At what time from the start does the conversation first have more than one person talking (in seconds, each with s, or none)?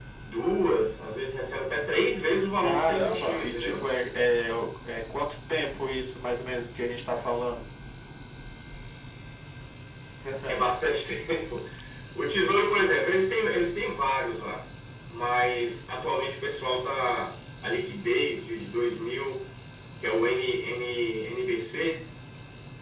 2.6 s